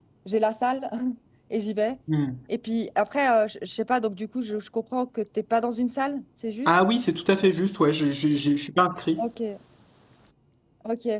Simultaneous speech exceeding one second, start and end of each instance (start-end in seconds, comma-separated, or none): none